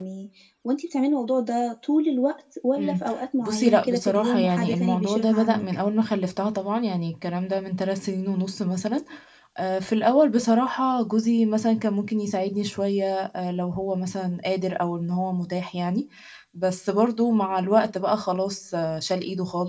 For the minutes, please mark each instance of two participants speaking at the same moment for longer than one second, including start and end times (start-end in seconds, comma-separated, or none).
3.4-5.7